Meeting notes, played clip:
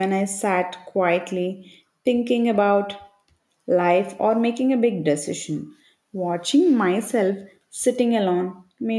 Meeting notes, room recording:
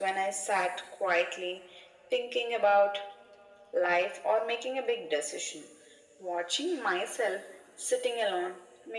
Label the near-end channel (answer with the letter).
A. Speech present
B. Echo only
B